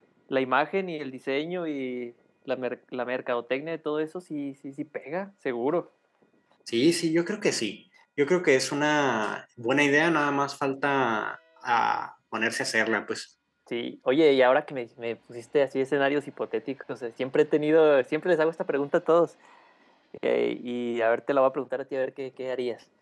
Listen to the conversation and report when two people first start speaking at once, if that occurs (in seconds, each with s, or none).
none